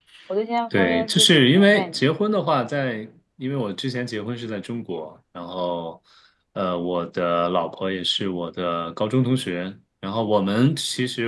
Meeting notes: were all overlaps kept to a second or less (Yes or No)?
No